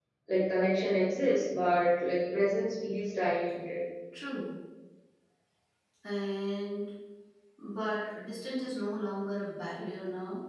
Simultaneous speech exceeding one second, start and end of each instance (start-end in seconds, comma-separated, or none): none